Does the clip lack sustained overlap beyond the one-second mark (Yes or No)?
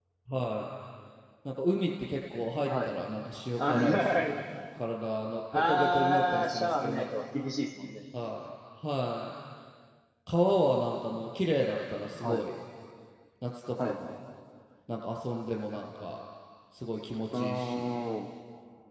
No